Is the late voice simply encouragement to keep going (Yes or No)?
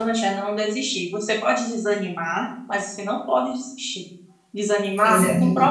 Yes